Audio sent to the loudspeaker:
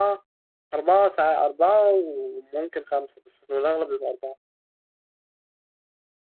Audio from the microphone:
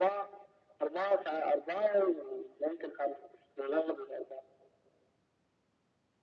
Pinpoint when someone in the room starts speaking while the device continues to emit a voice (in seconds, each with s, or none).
none